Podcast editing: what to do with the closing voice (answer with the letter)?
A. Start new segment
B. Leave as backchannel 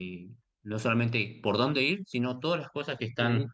B